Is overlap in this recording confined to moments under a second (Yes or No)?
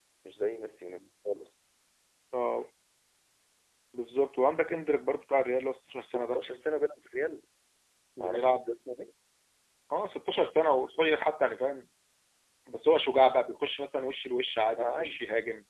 Yes